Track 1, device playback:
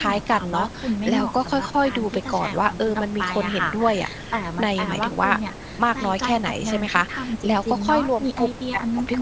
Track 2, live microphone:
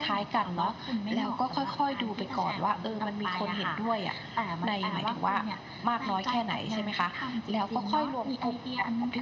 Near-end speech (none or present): none